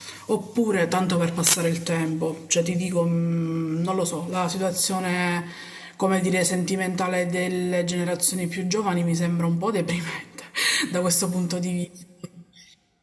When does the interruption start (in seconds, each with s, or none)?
none